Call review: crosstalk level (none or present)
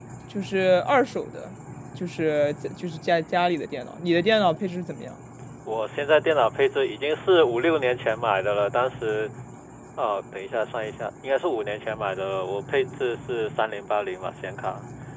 none